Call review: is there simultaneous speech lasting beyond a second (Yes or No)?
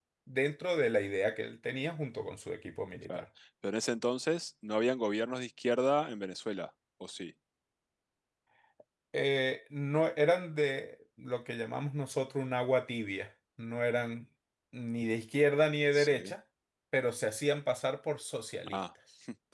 No